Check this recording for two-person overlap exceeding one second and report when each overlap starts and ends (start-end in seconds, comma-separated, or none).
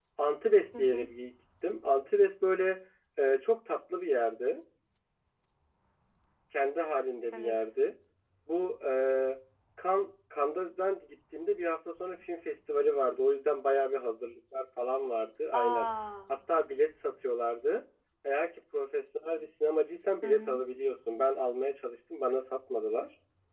none